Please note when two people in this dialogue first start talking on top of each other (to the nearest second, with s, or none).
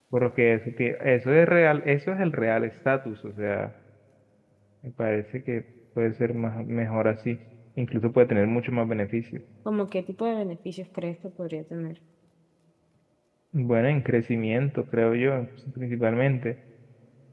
none